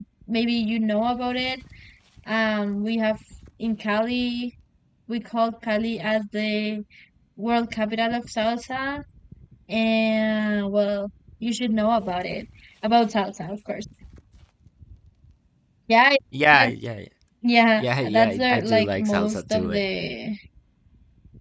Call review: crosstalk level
present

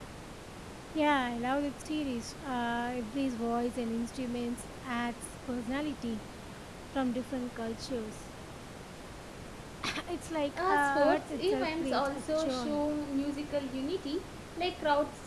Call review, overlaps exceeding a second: present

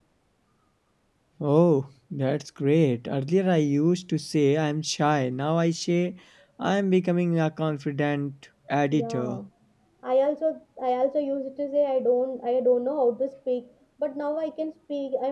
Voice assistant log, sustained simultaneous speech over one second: none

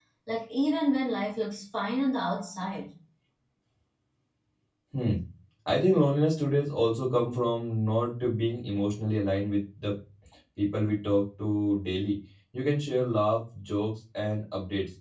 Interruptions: none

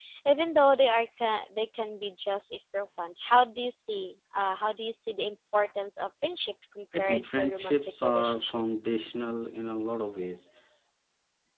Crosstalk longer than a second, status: present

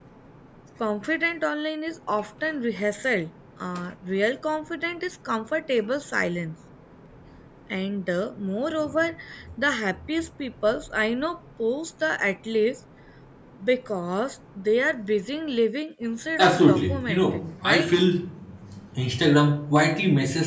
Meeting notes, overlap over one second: present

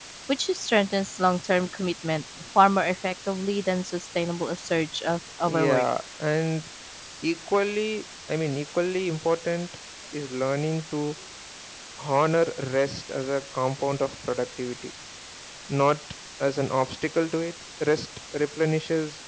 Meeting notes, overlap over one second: none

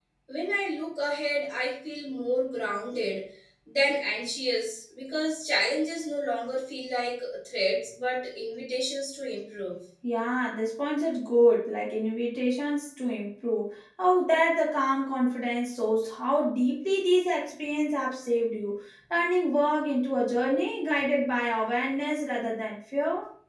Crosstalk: none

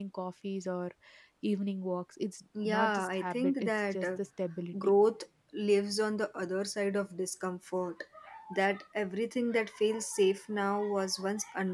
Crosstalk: present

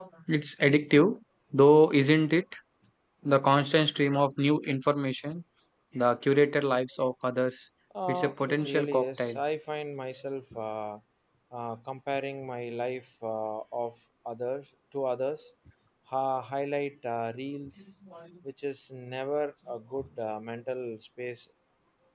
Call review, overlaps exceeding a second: present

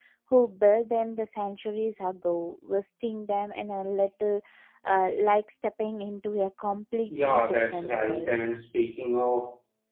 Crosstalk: present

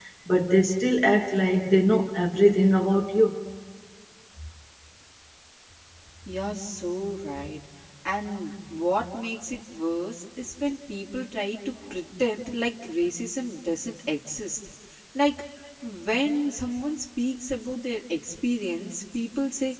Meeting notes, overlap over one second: none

